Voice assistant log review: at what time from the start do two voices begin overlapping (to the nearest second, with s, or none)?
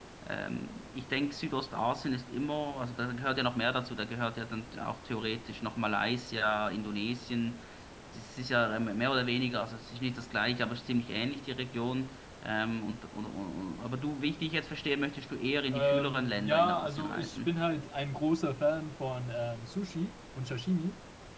16 s